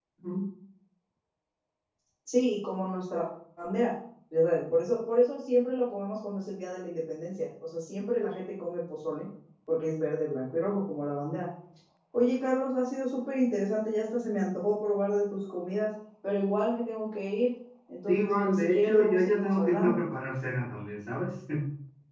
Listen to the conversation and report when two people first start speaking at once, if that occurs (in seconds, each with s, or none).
18.1 s